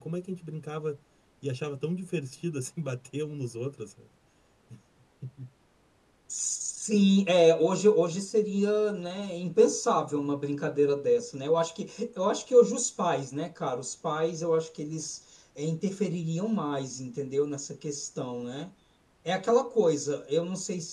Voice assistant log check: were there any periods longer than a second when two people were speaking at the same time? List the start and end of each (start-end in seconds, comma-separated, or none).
none